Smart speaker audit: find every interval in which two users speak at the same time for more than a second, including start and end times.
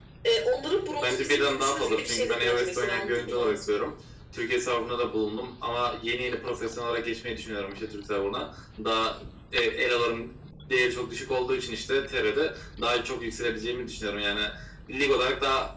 1.0-3.5

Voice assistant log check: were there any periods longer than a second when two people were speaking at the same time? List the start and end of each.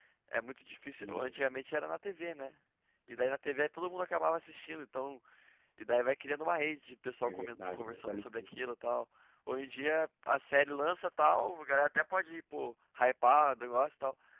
7.2-8.5

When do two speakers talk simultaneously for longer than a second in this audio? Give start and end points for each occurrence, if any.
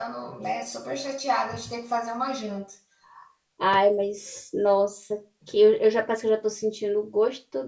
none

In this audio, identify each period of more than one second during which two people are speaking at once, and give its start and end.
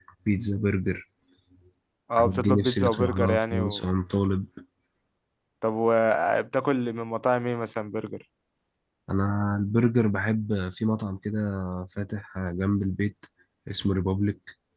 2.2-3.9

